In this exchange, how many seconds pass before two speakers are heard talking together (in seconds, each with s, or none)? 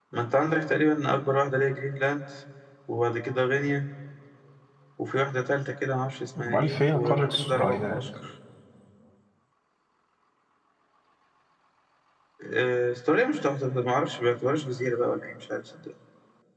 6.4 s